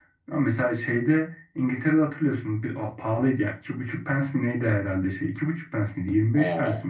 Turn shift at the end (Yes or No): Yes